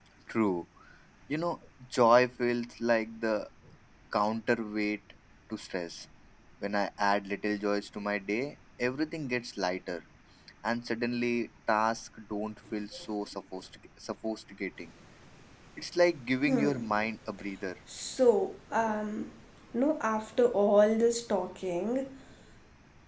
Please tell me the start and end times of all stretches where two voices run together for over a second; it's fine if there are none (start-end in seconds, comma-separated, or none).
none